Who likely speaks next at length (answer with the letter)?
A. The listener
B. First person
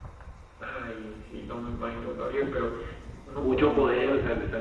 A